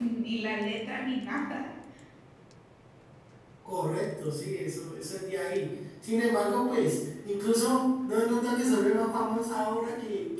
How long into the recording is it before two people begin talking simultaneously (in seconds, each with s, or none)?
none